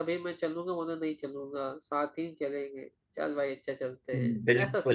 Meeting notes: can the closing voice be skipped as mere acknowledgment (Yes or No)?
No